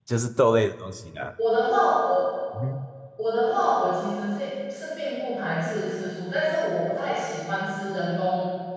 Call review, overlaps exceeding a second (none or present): none